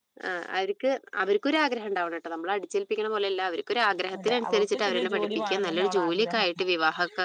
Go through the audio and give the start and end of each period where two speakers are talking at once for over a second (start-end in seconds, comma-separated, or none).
4.2-6.5